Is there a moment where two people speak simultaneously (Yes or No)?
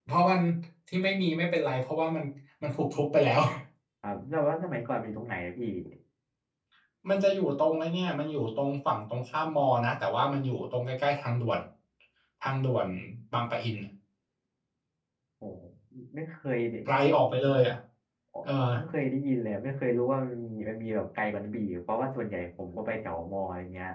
No